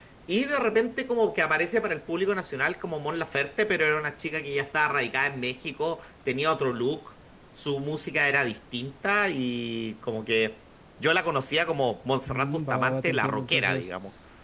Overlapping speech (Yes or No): Yes